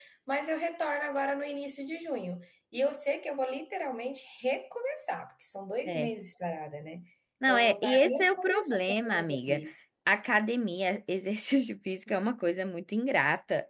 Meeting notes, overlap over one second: present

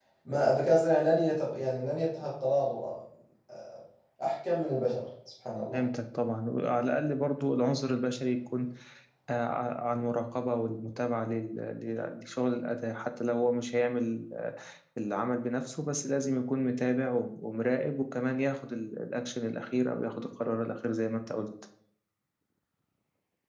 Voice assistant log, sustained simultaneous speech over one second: none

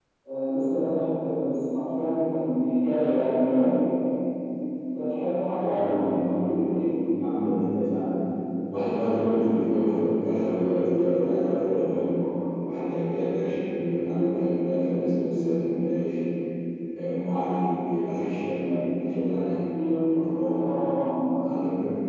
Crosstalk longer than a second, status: none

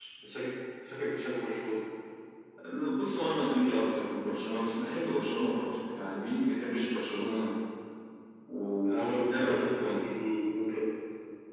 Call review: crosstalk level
present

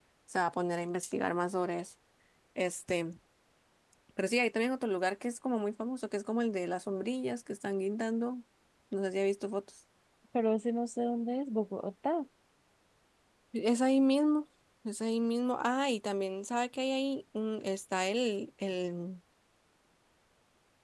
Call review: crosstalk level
none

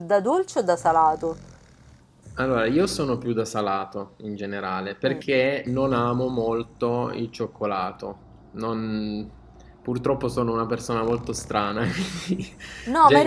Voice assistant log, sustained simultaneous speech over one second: none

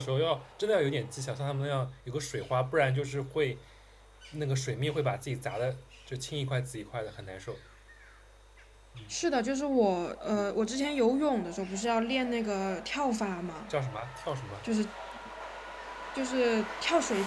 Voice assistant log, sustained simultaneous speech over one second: none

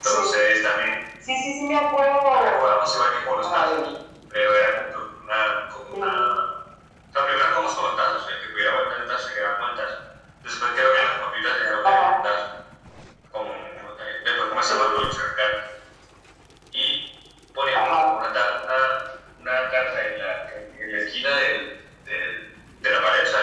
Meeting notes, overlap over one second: none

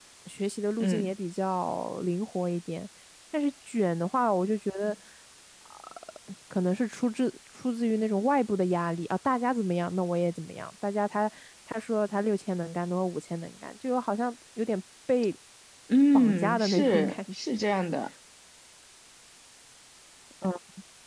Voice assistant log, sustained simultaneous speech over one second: present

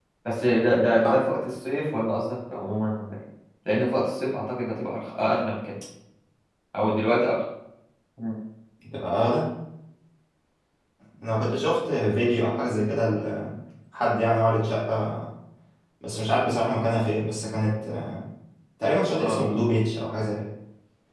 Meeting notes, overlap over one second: none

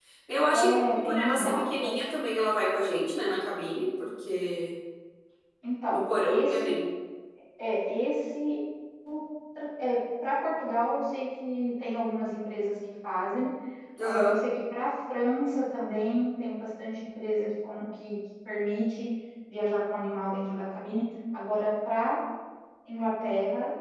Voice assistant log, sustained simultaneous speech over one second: present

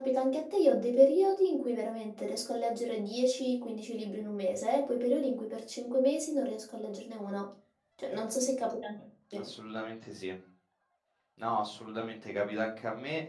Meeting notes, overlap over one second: none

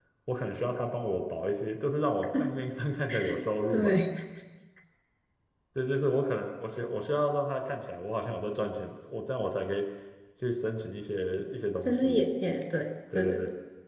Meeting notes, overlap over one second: none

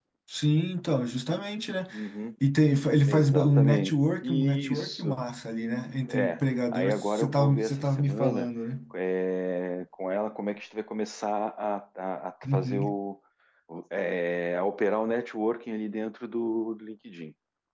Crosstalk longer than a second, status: present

